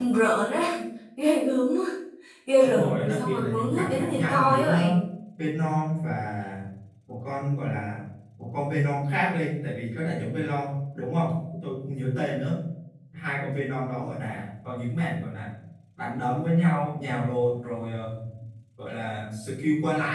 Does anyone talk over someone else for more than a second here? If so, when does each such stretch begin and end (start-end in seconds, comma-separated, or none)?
2.6-4.7